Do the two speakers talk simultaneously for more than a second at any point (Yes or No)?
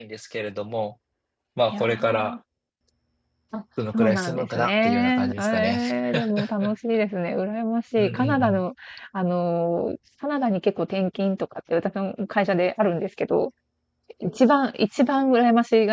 Yes